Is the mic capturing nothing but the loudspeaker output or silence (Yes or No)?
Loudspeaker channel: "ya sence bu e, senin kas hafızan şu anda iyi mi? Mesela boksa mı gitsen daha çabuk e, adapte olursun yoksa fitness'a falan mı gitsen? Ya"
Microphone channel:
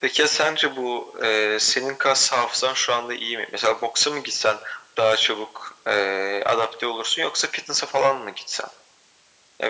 Yes